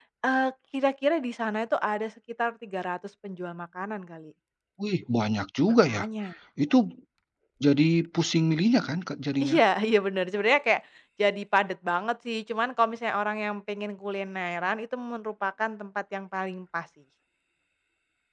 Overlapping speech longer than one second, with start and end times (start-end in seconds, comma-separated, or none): none